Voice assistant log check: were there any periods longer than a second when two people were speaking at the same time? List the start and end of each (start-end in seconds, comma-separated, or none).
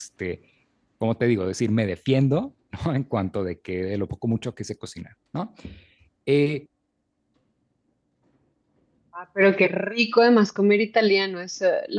none